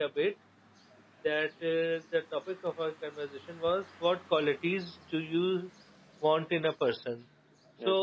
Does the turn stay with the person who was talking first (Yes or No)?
Yes